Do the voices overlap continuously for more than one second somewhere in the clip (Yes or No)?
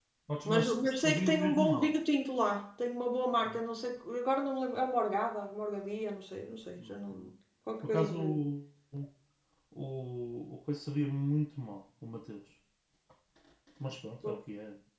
Yes